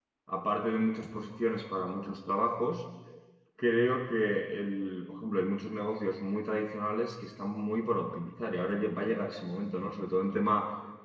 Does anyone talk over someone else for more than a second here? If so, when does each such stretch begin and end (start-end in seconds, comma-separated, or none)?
none